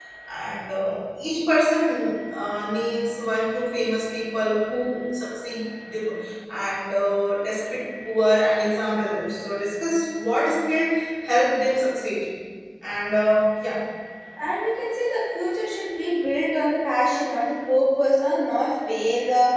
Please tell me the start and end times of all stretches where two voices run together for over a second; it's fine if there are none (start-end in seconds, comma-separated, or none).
none